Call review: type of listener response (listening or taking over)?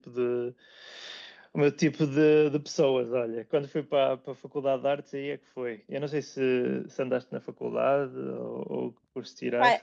taking over